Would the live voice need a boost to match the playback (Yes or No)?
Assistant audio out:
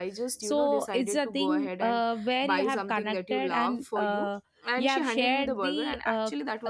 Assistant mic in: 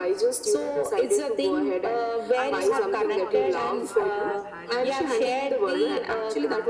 Yes